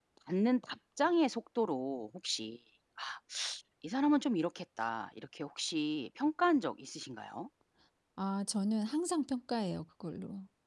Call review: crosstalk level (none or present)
none